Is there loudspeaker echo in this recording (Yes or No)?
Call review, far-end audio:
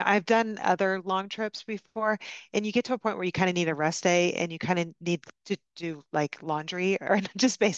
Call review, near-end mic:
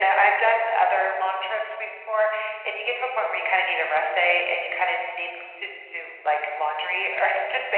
Yes